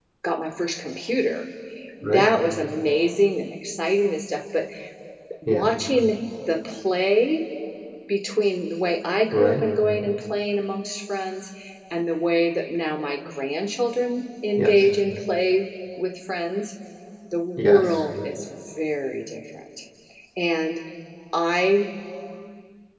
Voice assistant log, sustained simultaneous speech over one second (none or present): none